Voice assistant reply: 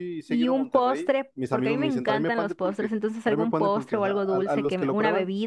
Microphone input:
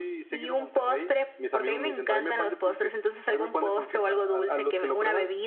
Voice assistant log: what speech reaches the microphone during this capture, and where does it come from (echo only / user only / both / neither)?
echo only